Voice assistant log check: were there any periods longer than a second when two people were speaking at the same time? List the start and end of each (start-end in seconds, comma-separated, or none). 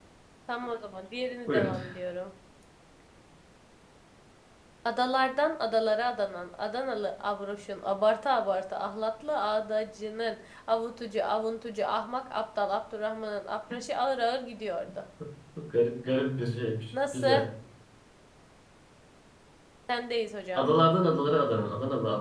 none